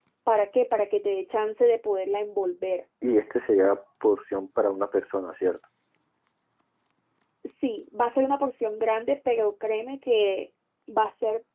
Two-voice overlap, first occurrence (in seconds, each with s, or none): none